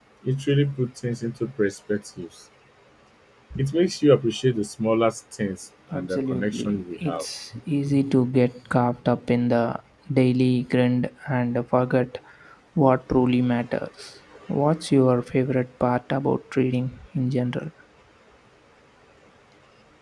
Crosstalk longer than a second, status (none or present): present